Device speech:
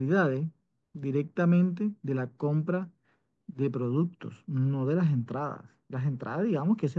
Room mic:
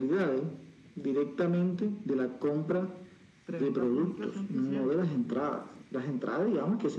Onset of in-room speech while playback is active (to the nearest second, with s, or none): 3 s